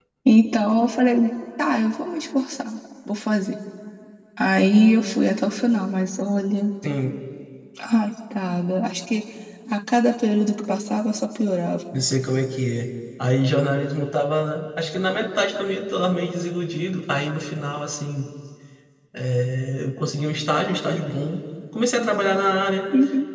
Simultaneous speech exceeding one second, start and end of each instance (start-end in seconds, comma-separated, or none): none